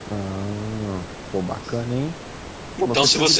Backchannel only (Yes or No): No